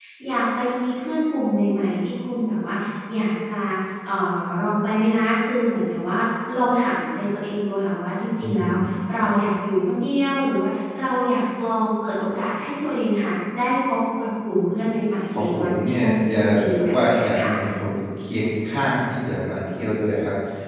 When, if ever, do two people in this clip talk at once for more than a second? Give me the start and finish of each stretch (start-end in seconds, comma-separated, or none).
15.3-17.5